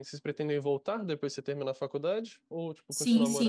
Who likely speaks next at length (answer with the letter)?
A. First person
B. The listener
B